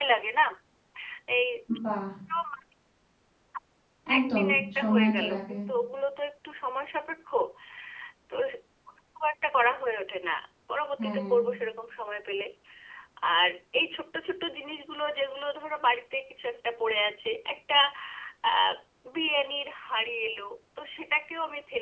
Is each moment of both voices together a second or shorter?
No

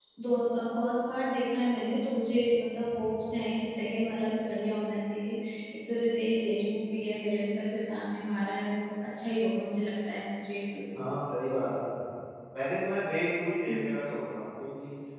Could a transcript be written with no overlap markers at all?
Yes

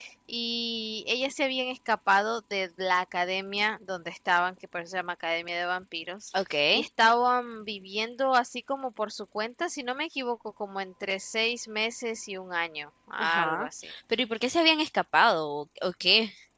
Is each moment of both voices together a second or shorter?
Yes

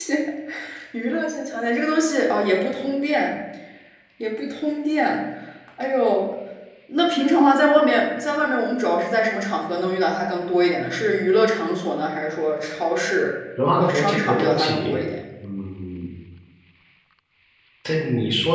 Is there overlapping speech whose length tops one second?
Yes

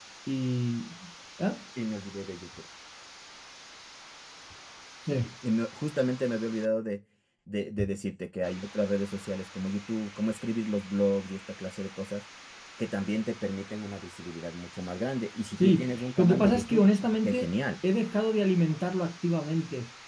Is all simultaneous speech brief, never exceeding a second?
No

